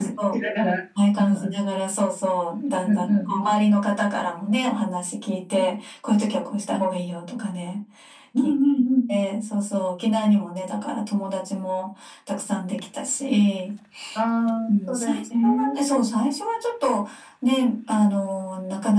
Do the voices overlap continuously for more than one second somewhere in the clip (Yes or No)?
Yes